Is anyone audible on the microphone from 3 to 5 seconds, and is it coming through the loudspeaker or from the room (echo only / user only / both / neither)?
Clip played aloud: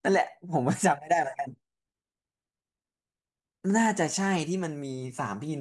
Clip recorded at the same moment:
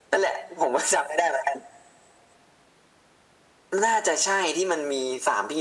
echo only